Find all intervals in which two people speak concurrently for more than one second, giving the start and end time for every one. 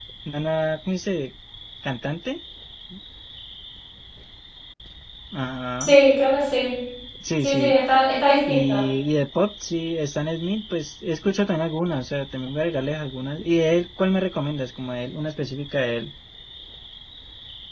none

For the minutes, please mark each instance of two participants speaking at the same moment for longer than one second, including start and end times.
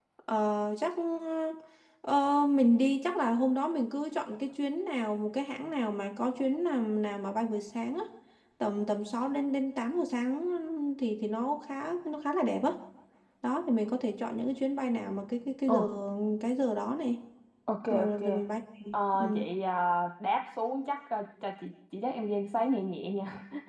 none

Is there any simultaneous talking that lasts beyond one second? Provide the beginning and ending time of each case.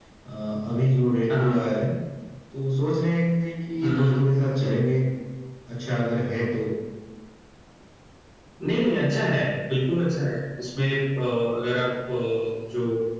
none

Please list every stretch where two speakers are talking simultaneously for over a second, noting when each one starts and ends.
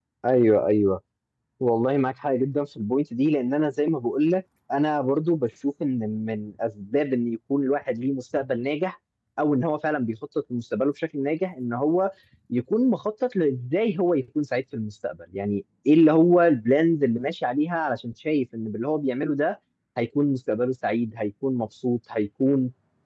none

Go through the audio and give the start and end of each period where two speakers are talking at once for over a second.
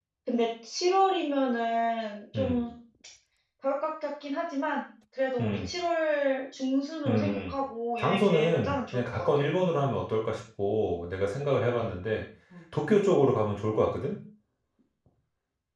8.0-9.4

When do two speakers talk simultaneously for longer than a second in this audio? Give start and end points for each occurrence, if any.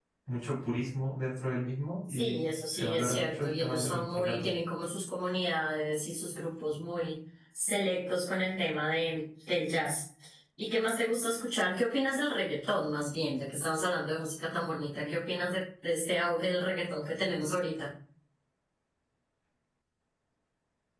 2.1-4.4

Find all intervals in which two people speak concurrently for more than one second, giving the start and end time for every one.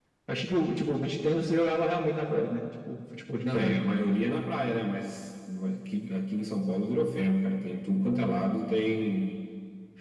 none

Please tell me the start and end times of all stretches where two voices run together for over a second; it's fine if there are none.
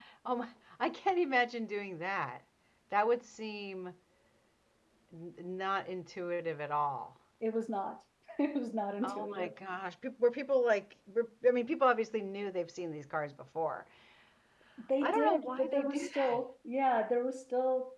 15.0-16.4

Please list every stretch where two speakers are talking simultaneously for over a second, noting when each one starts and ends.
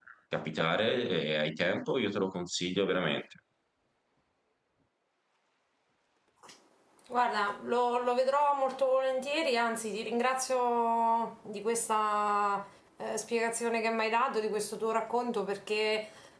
none

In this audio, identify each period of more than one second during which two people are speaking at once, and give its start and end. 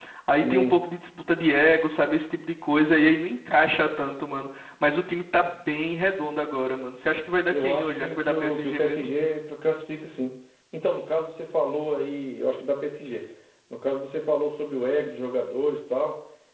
7.5-9.1

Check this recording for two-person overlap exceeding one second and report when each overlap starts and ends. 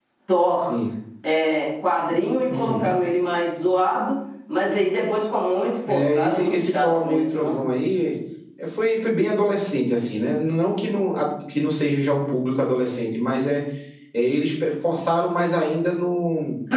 5.9-7.6

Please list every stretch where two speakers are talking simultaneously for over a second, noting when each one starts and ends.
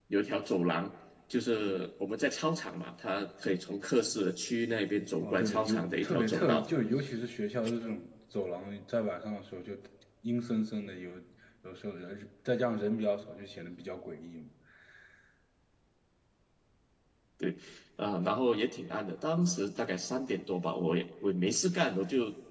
5.2-6.7

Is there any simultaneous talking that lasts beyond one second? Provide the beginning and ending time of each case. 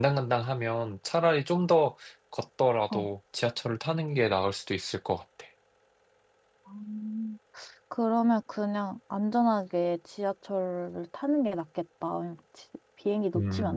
none

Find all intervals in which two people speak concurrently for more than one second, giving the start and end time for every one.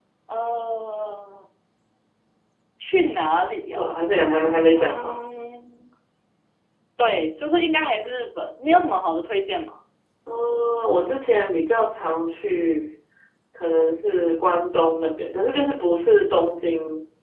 none

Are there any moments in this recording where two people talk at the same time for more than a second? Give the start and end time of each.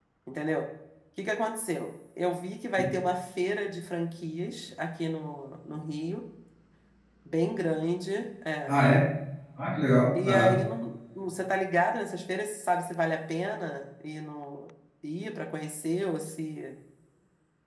none

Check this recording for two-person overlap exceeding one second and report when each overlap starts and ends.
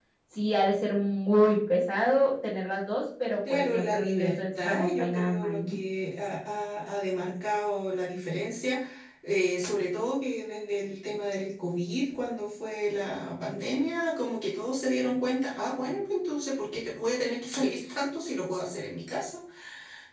3.5-5.8

